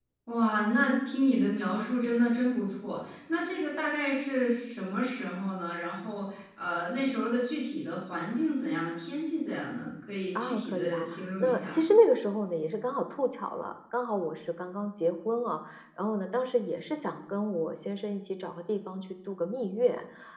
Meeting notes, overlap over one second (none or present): present